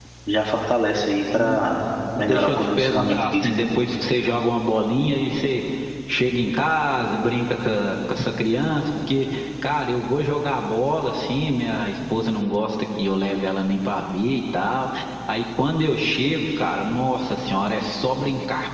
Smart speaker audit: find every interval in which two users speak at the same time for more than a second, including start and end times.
2.2-3.7

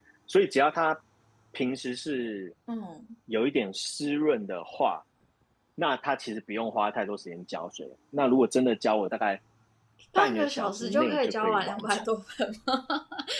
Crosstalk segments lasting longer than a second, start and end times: 10.2-12.0

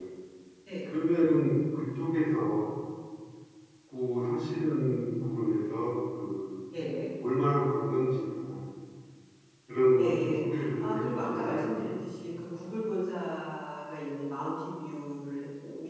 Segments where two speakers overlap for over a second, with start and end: 10.0-11.9

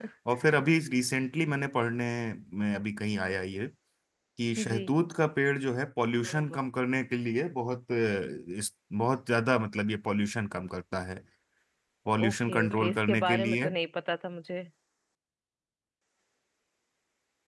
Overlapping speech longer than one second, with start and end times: 12.2-13.7

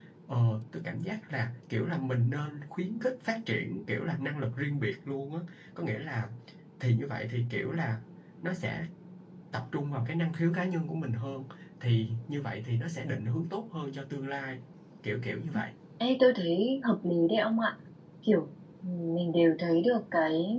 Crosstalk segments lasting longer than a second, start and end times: none

